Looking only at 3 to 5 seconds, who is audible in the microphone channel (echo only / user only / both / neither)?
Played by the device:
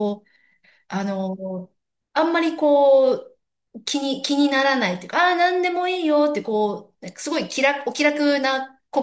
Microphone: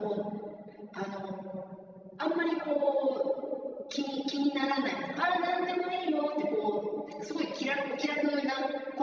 echo only